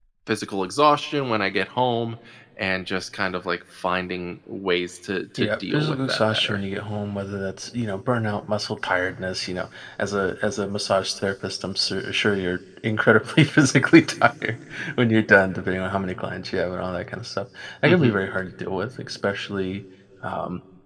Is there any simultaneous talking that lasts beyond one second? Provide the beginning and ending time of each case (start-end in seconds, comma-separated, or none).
5.4-6.6